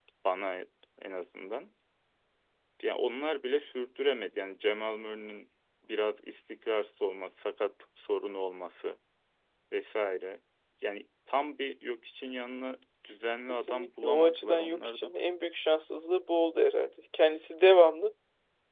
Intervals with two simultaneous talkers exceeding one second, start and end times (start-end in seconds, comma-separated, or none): 13.5-15.1